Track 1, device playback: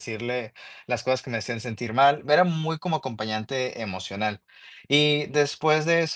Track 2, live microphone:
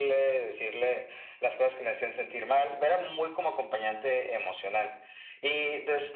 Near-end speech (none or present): none